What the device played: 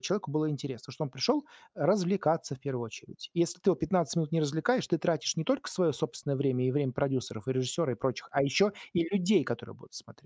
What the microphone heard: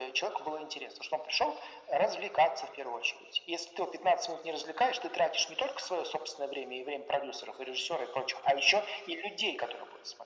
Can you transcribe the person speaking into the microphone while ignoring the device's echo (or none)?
none